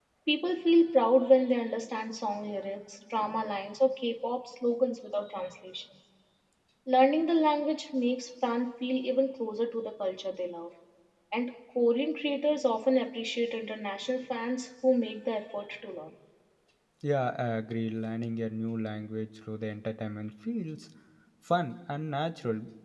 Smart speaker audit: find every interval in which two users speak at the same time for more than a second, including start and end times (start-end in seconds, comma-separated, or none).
none